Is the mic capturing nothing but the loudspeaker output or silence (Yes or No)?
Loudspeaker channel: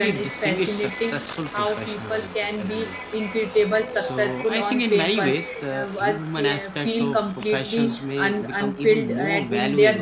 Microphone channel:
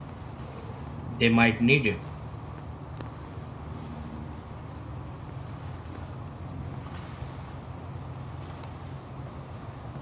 No